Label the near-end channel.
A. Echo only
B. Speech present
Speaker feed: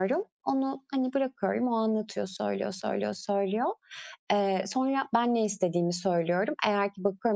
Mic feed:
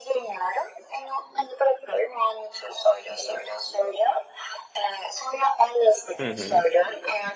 B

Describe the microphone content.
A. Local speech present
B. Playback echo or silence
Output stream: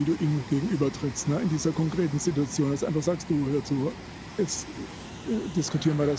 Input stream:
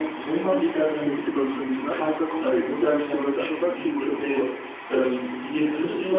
A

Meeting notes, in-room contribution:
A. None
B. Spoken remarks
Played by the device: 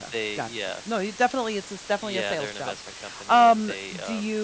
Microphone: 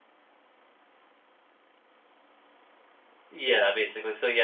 B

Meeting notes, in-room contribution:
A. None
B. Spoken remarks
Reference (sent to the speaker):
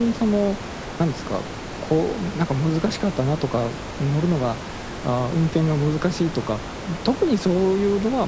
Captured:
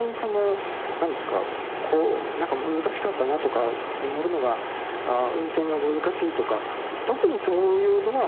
A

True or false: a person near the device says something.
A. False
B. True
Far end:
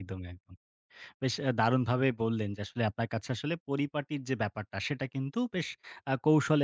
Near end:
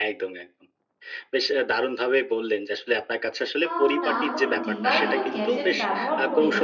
B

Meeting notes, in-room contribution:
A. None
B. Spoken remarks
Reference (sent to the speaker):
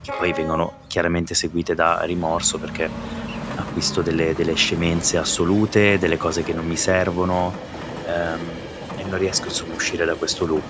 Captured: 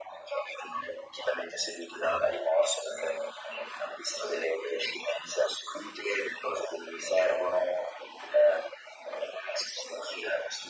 A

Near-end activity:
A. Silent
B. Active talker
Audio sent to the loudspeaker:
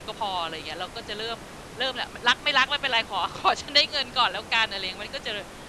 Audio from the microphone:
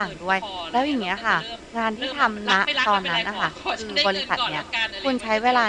B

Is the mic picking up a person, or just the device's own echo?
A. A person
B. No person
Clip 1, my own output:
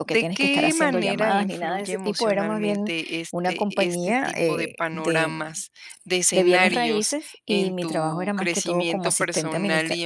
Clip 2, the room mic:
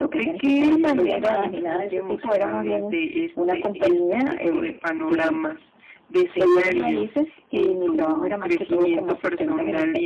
B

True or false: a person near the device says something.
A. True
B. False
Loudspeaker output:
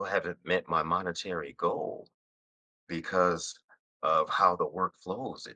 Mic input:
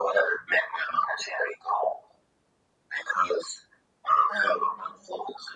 A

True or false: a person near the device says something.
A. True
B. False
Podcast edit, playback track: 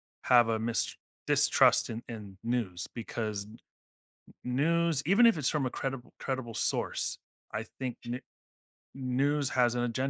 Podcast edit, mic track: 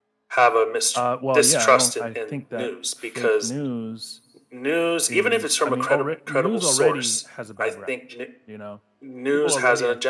A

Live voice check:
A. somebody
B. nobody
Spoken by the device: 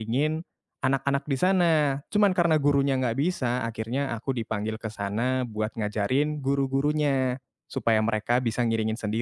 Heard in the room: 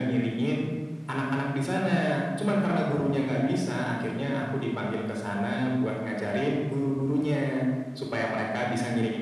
B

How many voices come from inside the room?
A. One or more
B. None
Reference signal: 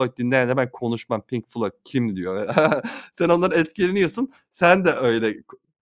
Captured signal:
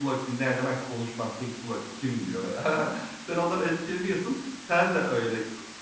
B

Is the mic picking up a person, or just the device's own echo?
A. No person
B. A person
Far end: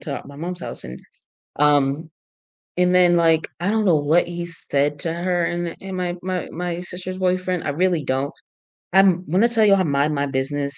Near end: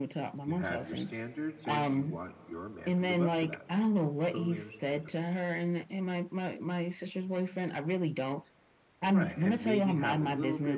B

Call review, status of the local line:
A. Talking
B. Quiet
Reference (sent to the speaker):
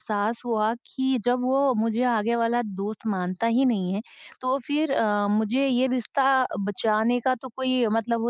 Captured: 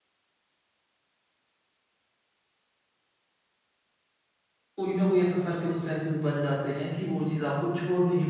A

